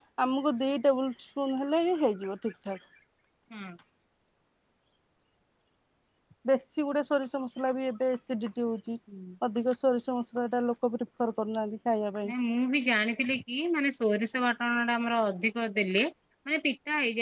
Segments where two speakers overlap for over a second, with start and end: none

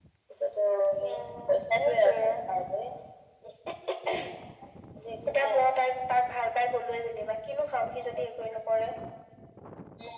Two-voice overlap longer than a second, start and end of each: 1.0-2.4

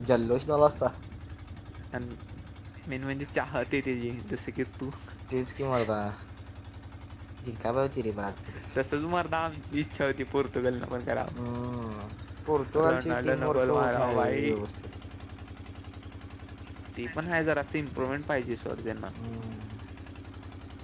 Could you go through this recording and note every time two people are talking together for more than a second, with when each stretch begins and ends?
12.9-14.4

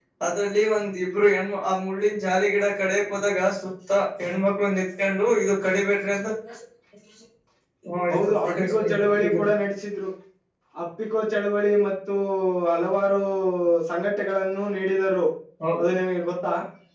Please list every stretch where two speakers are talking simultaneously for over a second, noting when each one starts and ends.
8.1-9.5

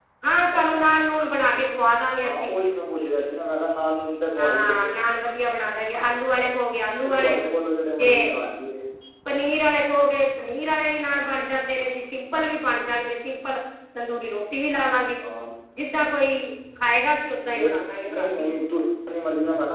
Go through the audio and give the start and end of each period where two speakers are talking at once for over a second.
none

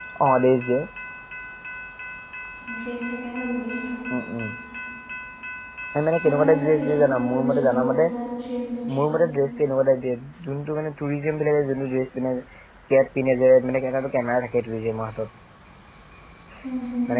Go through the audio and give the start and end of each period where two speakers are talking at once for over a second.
6.2-8.1

